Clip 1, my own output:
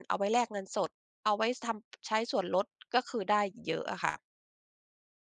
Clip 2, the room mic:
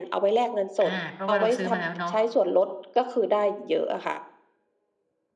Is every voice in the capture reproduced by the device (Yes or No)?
No